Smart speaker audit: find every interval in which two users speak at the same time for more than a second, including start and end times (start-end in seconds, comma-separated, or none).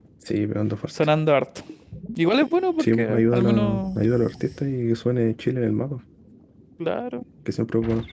2.8-4.0